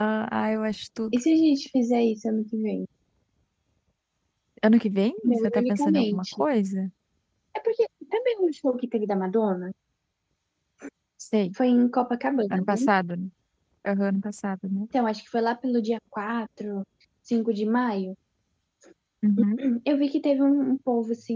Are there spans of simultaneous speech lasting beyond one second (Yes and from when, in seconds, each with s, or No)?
Yes, from 5.2 s